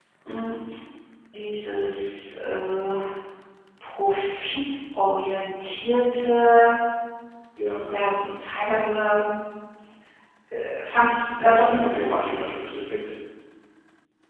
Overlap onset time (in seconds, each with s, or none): 11.3 s